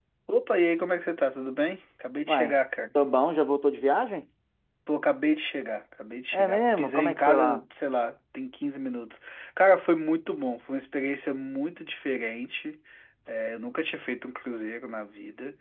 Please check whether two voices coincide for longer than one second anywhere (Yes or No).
Yes